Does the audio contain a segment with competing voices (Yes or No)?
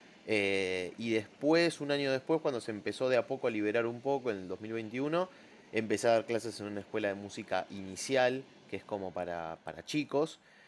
No